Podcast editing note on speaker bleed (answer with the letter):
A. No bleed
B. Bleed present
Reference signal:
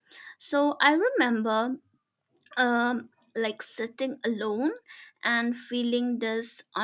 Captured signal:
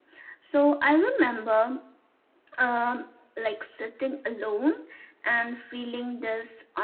B